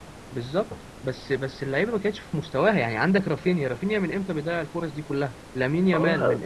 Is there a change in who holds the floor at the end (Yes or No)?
Yes